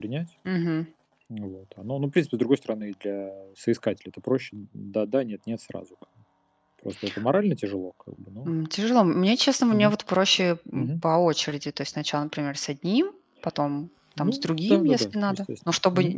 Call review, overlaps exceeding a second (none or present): present